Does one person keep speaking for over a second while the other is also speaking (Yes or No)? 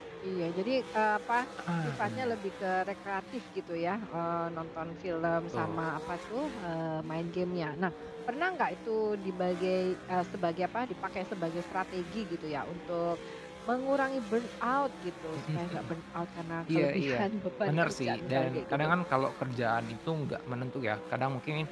Yes